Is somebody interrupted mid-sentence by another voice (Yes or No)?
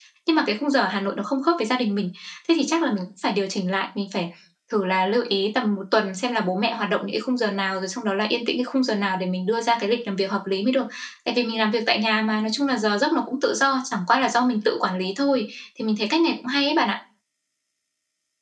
No